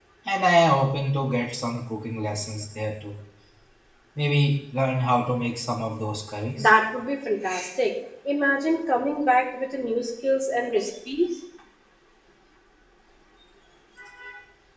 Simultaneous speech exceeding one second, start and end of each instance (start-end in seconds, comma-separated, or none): none